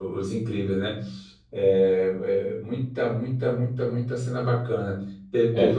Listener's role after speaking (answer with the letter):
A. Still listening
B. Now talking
A